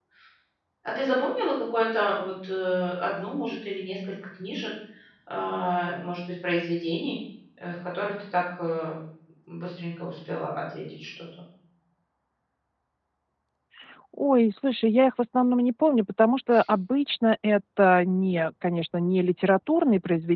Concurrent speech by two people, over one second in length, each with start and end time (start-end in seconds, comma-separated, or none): none